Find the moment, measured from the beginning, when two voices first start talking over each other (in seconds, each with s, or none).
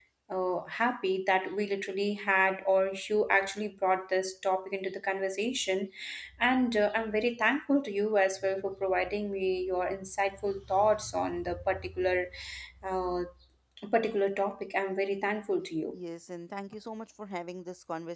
none